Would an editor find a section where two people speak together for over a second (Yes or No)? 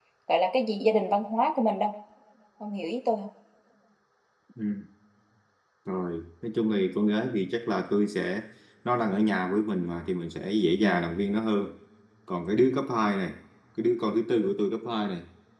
No